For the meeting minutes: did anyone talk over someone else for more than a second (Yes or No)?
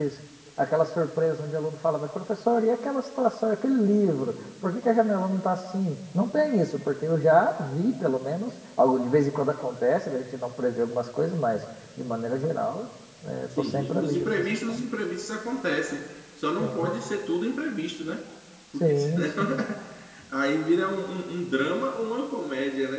Yes